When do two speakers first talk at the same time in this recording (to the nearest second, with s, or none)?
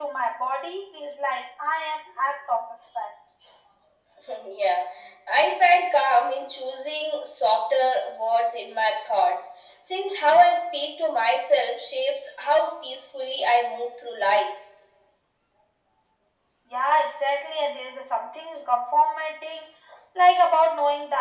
none